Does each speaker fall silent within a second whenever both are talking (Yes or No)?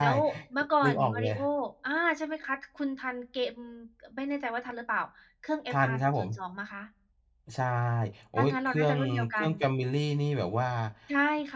No